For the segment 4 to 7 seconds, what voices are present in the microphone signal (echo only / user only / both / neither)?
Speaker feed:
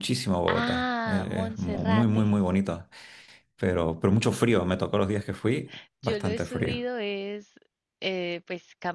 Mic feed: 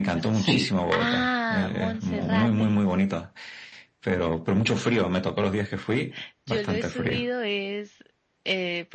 echo only